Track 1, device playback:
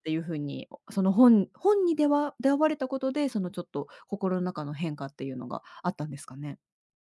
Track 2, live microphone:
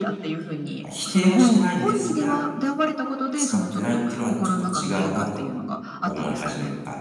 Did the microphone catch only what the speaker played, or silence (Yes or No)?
No